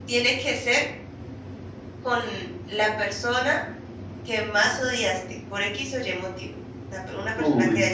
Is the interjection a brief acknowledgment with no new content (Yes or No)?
Yes